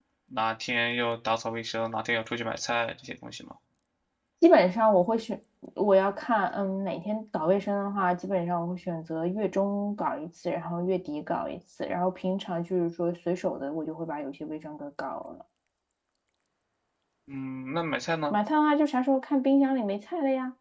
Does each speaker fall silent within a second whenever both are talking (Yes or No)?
Yes